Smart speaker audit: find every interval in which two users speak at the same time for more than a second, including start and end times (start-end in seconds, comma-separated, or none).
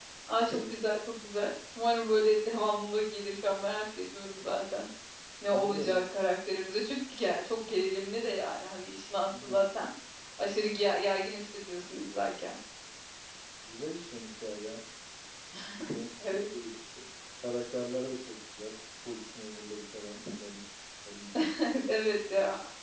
none